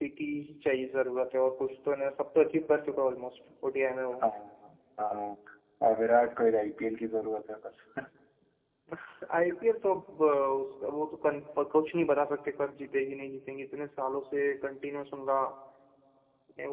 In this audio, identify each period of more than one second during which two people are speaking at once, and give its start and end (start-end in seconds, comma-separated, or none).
none